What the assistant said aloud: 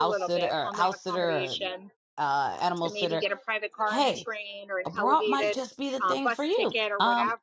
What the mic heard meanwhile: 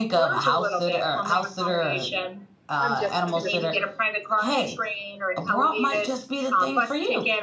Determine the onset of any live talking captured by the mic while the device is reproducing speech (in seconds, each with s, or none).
2.8 s